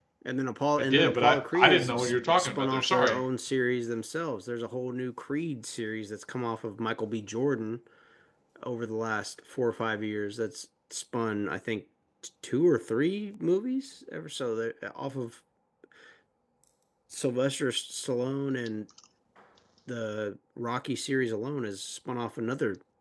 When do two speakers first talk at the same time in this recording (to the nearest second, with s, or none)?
1 s